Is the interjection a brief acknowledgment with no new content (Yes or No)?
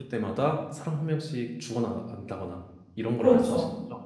No